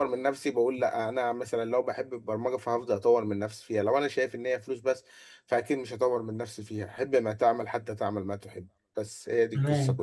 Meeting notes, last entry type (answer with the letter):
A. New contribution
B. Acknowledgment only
A